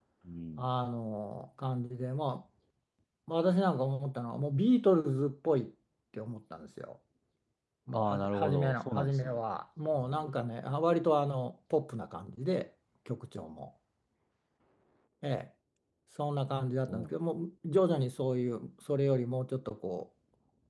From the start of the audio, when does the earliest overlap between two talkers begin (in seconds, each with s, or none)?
7.9 s